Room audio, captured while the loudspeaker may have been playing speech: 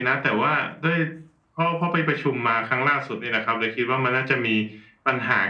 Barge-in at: none

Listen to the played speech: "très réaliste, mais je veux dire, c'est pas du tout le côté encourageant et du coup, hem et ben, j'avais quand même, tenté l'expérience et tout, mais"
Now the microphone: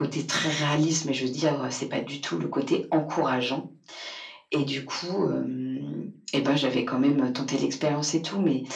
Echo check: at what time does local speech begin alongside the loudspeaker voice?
none

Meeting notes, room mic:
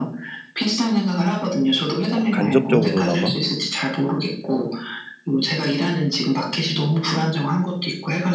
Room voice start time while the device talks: 2 s

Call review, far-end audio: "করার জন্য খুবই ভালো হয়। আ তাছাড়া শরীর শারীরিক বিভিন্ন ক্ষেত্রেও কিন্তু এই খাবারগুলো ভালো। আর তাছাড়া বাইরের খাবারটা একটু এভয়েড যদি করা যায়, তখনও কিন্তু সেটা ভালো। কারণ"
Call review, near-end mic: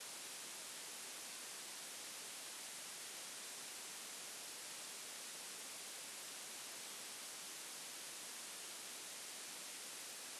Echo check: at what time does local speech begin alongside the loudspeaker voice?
none

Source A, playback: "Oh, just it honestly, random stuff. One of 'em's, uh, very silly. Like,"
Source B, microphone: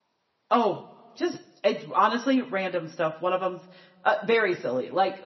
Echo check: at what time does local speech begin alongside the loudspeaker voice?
none

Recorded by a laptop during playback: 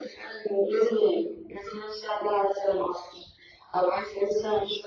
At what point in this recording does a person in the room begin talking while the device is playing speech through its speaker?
none

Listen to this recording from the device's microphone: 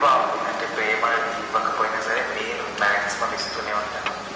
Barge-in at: none

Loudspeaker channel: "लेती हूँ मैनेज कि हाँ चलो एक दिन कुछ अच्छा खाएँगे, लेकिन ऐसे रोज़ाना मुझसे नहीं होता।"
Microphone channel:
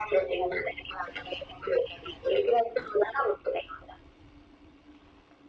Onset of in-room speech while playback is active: none

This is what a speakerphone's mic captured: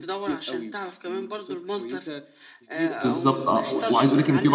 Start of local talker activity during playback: 3 s

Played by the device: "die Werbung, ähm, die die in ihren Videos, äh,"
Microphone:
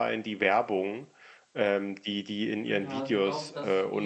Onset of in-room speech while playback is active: 3 s

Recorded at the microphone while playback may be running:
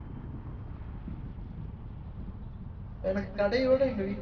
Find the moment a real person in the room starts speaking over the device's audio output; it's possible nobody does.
3 s

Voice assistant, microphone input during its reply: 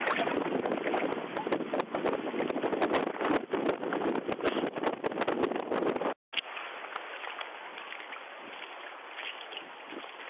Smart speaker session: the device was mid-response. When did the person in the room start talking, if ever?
none

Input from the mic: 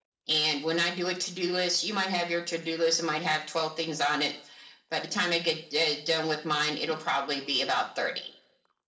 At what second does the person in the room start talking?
none

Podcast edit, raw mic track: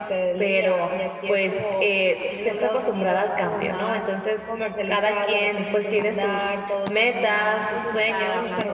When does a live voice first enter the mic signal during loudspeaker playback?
8 s

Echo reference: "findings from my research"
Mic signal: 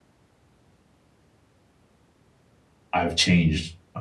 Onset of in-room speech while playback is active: 3 s

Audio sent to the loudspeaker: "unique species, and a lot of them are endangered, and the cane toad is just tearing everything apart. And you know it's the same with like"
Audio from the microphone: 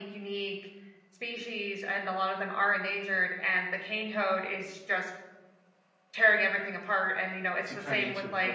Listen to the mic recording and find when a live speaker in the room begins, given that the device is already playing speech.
8 s

